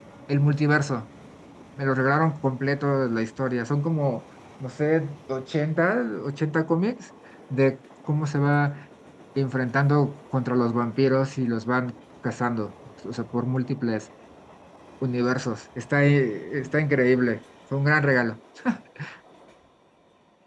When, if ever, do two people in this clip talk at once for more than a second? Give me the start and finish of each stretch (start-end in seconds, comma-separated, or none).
none